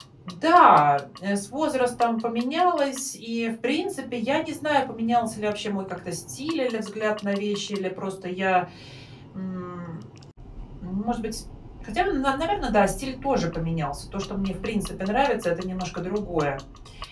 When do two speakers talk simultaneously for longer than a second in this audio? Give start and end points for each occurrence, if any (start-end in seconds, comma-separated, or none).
none